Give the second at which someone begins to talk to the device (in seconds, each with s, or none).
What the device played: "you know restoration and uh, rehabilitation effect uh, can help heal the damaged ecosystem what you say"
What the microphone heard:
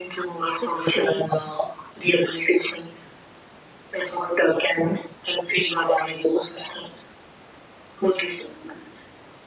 0.4 s